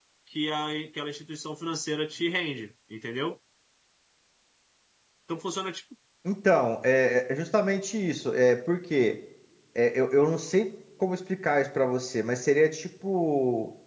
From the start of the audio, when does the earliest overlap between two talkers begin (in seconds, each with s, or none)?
none